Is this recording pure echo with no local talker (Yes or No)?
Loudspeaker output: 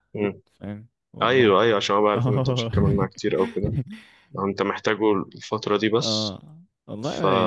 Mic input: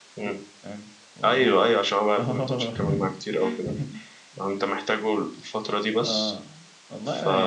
Yes